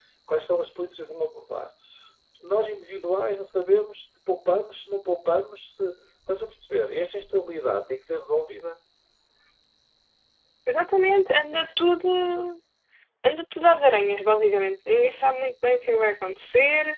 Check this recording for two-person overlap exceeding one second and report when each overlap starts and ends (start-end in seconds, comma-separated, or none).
none